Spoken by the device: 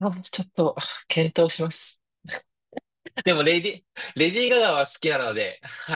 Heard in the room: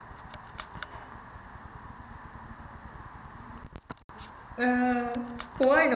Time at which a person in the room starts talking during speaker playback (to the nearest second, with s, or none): 5 s